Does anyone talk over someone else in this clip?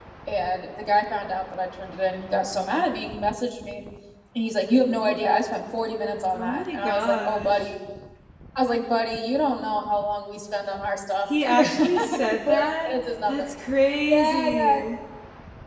Yes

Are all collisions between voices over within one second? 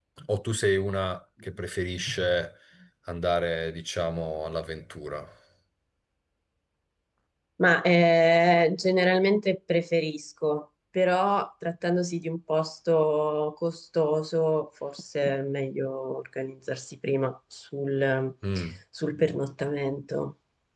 Yes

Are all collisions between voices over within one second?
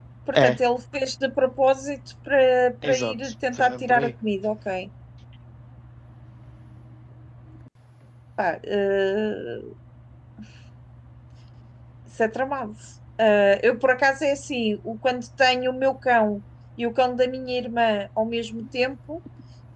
No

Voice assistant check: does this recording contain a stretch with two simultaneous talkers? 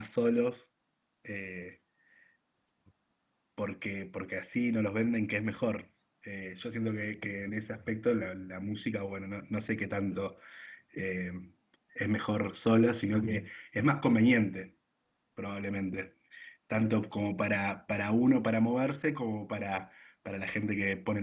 No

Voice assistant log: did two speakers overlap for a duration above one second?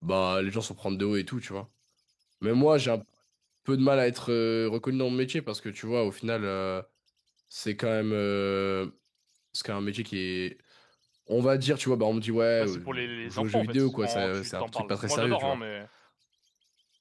Yes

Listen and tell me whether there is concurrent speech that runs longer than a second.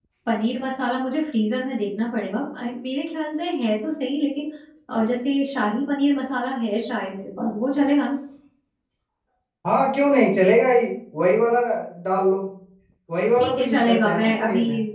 Yes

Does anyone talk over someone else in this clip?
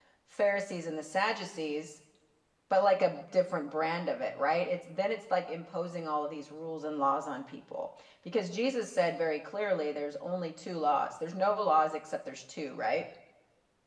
No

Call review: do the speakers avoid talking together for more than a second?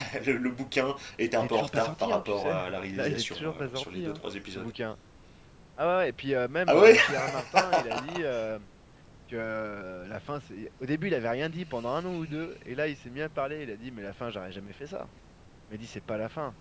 No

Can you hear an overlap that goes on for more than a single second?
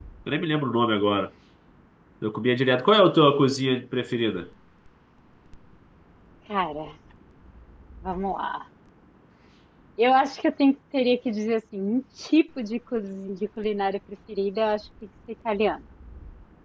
No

